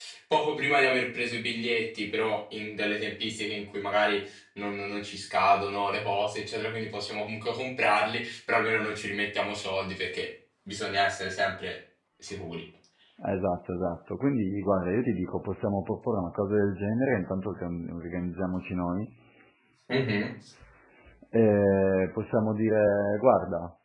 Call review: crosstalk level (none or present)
none